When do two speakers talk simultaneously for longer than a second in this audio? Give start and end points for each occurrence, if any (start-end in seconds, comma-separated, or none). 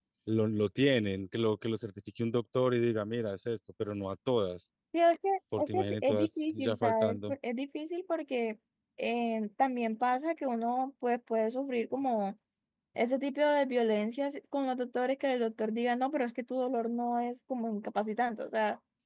5.6-7.3